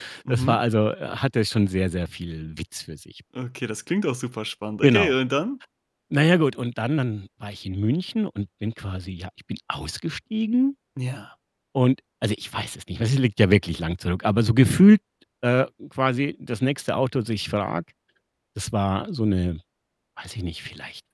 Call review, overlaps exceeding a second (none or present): none